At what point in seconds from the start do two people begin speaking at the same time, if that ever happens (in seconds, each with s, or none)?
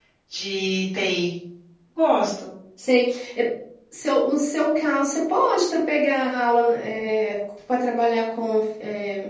none